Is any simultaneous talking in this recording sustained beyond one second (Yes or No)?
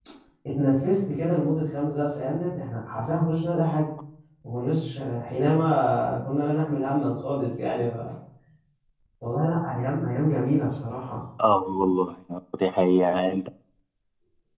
No